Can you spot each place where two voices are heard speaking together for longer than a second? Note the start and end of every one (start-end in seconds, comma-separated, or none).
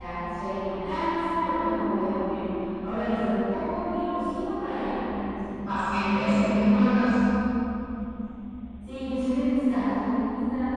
none